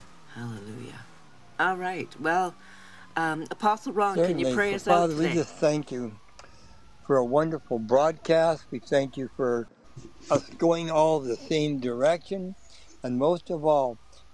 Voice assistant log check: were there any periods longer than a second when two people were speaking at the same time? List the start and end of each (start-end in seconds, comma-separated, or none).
4.2-5.5